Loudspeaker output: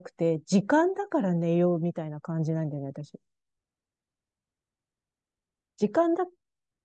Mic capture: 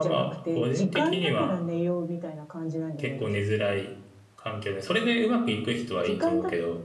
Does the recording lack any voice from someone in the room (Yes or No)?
No